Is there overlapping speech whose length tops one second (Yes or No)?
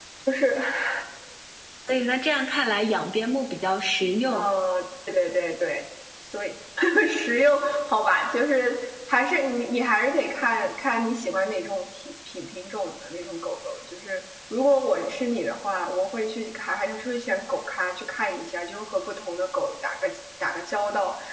No